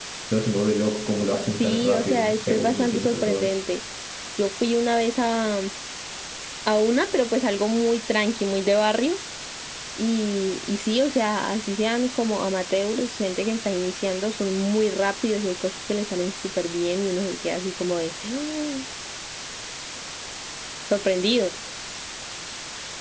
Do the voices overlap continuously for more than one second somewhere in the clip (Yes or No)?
Yes